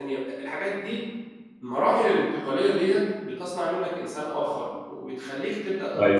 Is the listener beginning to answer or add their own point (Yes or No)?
No